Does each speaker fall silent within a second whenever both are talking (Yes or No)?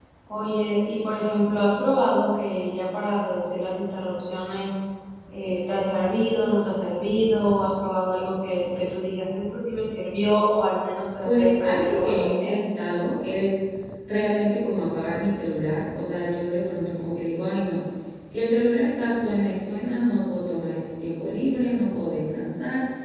No